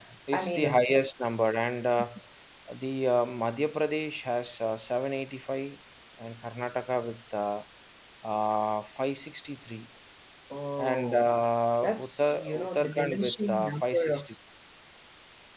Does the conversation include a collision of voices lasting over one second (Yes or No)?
Yes